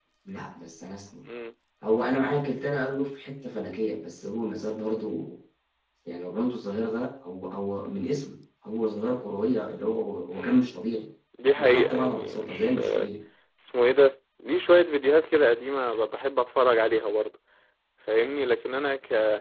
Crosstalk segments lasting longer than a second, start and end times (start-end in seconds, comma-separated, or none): 11.6-12.8